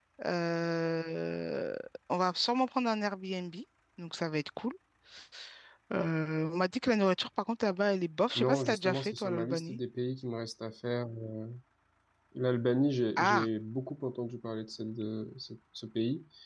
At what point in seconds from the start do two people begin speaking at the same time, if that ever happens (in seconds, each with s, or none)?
8.4 s